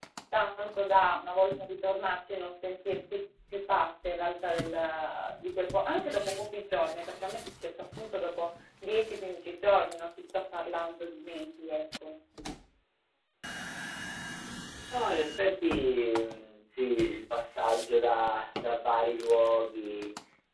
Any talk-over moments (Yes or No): No